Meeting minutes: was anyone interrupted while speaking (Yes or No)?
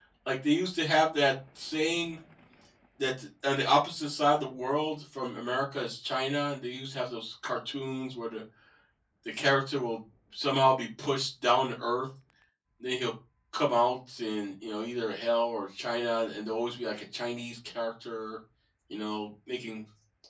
No